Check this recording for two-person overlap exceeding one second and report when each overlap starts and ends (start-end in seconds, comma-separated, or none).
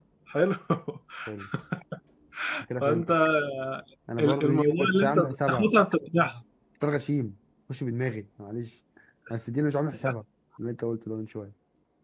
4.2-5.7